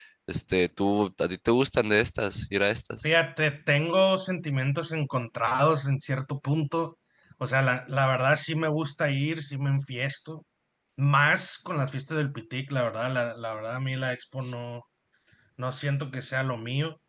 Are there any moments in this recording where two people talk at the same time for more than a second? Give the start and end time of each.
none

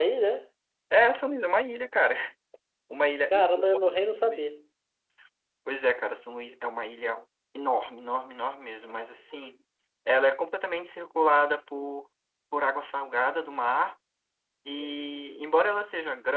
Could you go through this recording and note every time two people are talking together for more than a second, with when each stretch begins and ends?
3.3-4.5

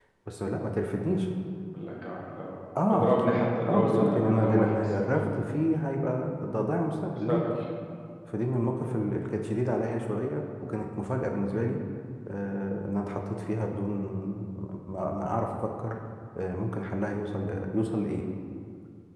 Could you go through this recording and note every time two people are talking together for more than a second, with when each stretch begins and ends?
3.7-5.4

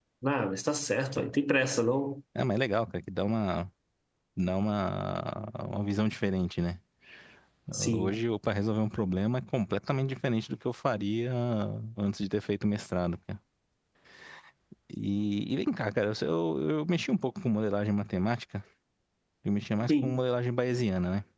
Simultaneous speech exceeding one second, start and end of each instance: none

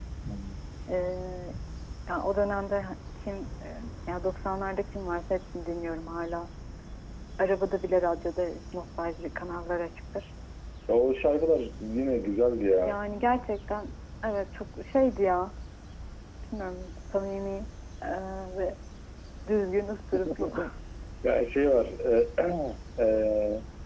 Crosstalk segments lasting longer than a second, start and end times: none

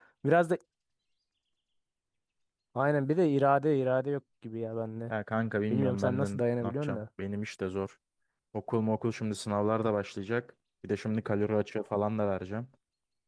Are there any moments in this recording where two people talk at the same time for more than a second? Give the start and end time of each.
5.7-7.0

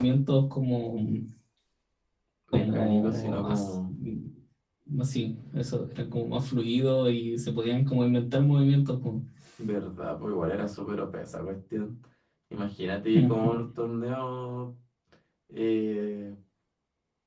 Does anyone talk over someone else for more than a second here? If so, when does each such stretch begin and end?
2.5-3.7

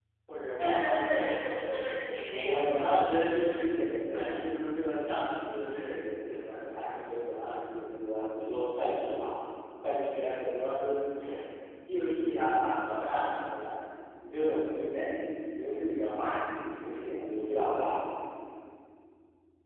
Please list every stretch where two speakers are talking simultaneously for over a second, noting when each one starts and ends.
0.6-1.8

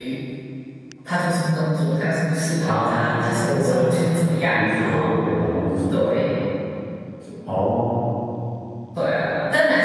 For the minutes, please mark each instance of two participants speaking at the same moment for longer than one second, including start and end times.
2.6-5.1

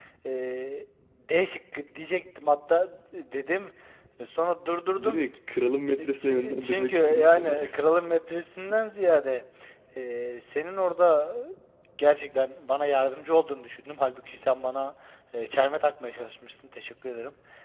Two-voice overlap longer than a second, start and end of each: 6.0-7.5

